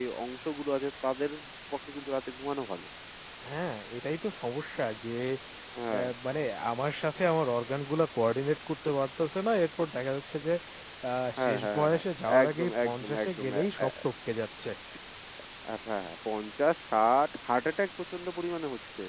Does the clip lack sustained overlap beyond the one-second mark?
No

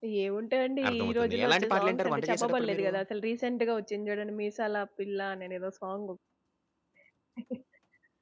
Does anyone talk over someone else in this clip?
Yes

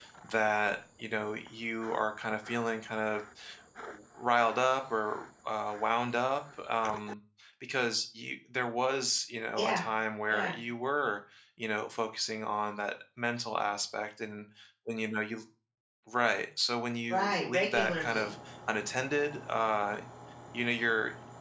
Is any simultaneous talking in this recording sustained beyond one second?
Yes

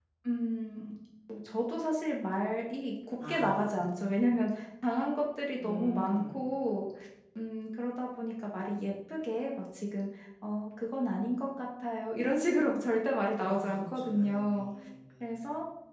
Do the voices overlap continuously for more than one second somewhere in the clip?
Yes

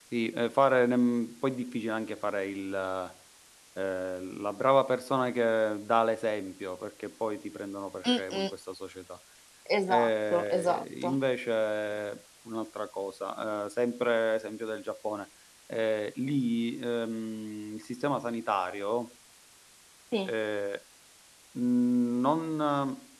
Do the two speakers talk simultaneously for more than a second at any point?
Yes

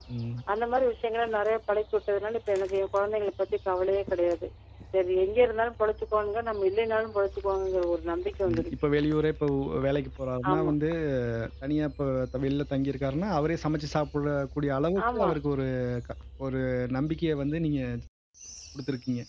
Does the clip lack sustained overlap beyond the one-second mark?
Yes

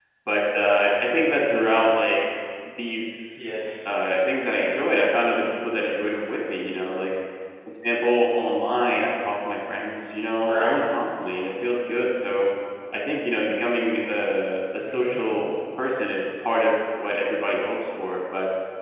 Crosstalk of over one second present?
No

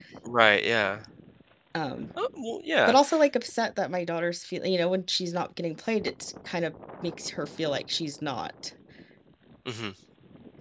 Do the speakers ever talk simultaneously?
No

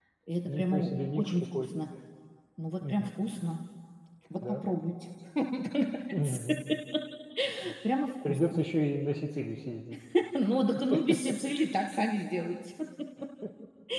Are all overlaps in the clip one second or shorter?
No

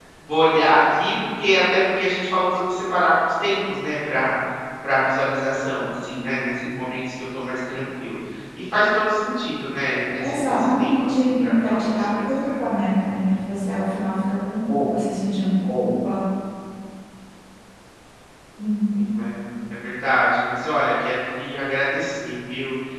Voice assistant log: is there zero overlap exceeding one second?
No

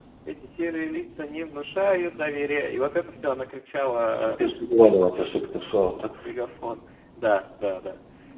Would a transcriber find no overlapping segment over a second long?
Yes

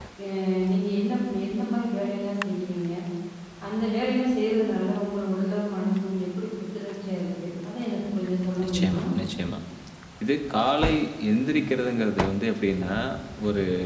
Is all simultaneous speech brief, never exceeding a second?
Yes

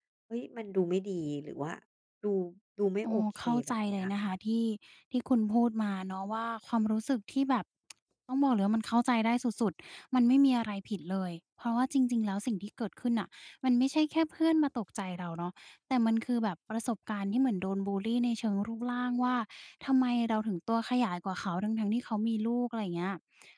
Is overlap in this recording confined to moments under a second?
No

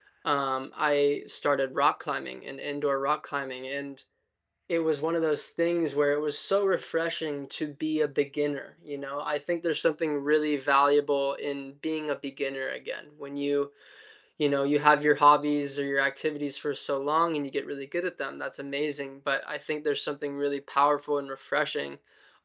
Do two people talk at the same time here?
No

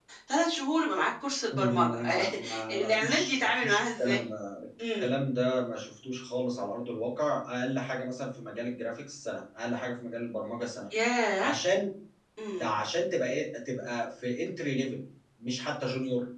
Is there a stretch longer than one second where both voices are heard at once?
Yes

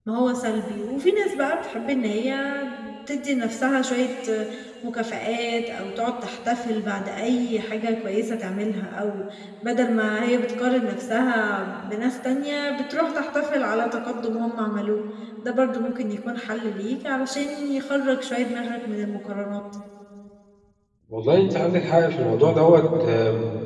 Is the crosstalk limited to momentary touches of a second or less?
Yes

